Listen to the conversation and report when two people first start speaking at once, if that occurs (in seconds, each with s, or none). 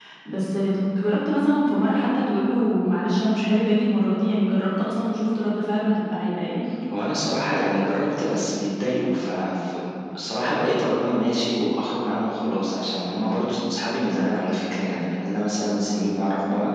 none